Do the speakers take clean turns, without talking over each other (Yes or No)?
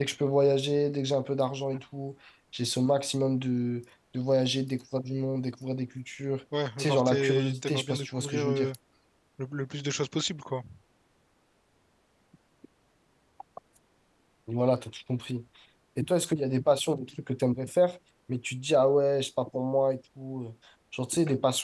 No